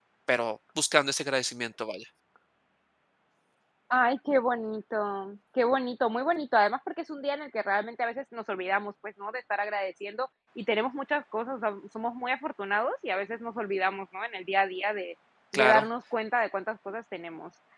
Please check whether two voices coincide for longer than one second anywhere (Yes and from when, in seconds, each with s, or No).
No